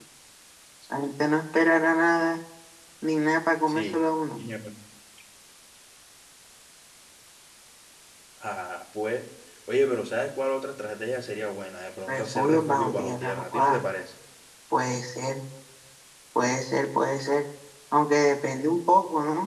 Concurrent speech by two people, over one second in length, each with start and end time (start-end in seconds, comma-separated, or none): 12.1-13.8